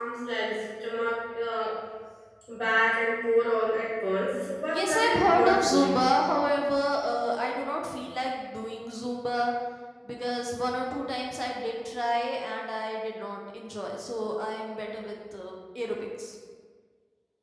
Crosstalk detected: Yes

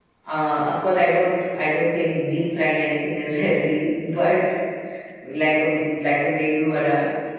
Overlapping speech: No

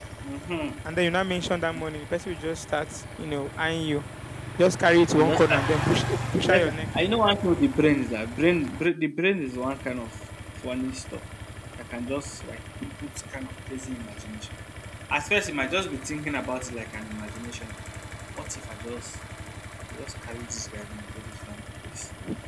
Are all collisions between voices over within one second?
Yes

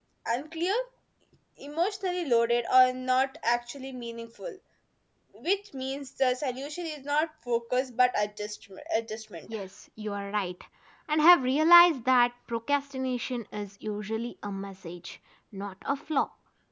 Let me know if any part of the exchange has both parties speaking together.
No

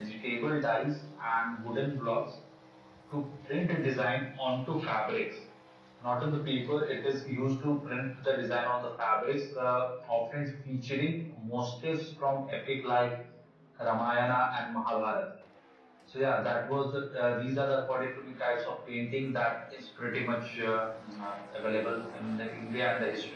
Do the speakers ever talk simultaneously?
No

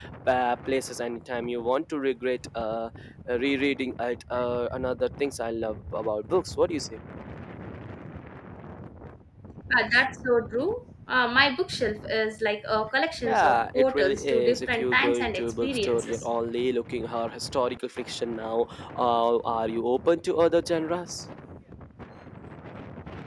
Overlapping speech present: Yes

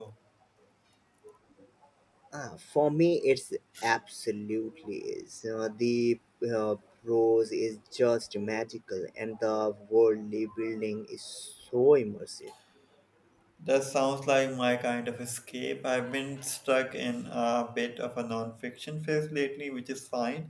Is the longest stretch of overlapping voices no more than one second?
Yes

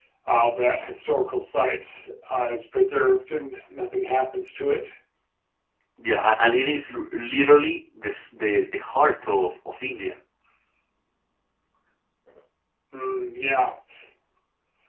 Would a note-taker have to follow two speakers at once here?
No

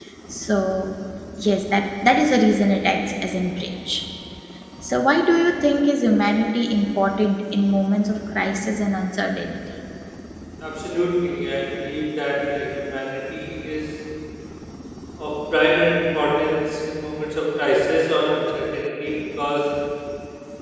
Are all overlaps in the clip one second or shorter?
Yes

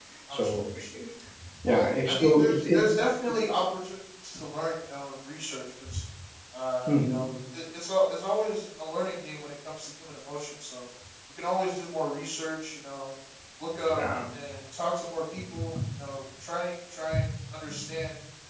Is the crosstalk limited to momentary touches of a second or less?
No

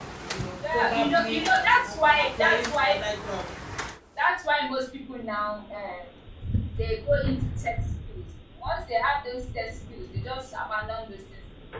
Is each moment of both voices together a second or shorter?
No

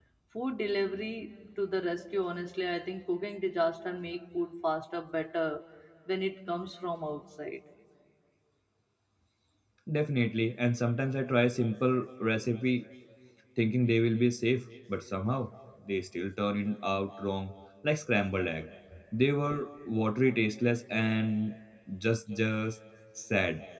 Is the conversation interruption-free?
Yes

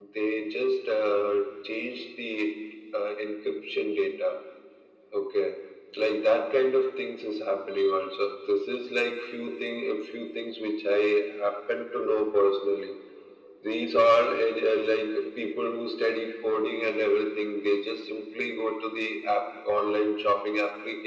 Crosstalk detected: No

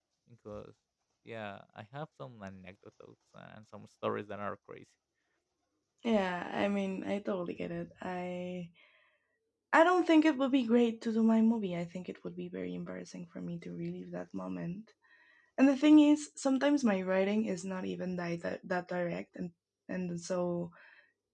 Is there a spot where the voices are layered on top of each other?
No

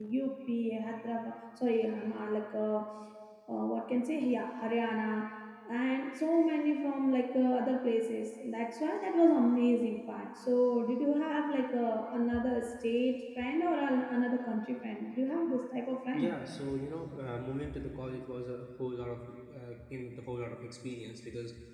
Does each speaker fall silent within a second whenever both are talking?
Yes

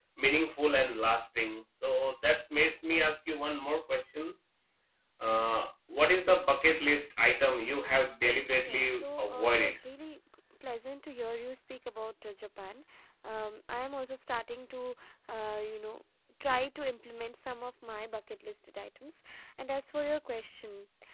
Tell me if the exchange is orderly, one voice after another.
No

